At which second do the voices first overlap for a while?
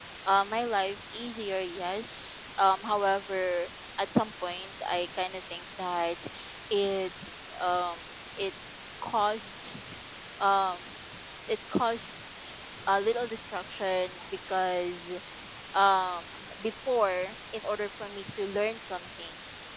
none

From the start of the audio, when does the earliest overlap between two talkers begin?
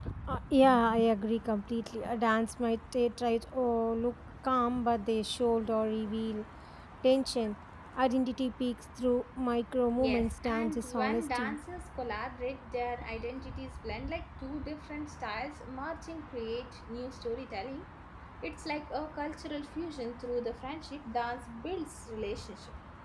10 s

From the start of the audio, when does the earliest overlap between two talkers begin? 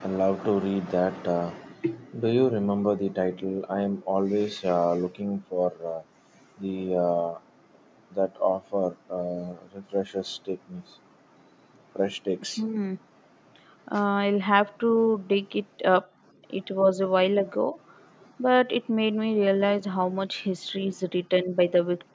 none

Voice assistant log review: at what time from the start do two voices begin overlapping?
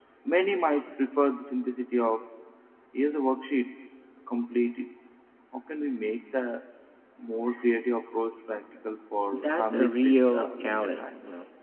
9 s

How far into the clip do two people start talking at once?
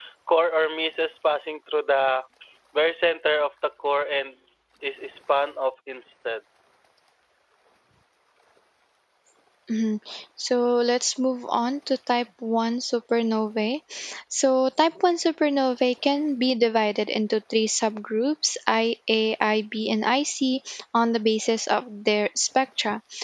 none

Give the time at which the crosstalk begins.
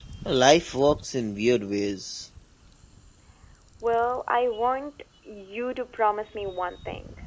none

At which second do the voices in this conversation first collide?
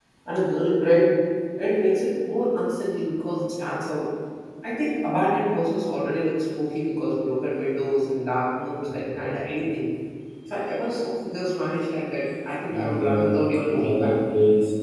13 s

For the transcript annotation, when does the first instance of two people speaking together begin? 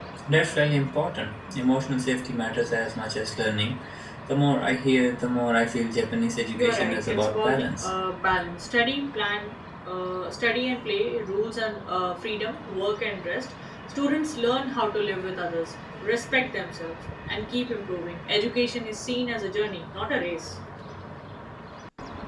7 s

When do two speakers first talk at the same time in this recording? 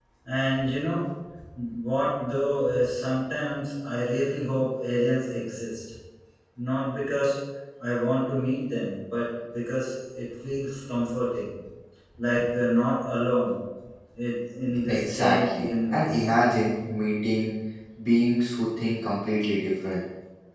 15 s

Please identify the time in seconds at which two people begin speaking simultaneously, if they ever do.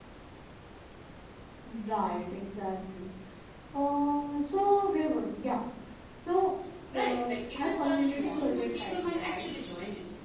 7 s

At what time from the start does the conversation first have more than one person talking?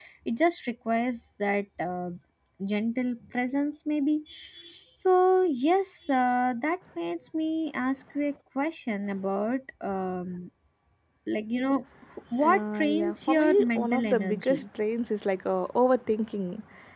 12 s

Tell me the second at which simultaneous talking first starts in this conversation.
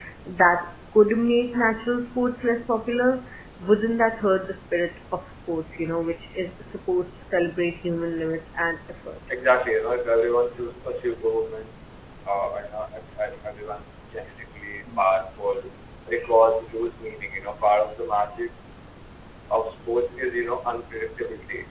none

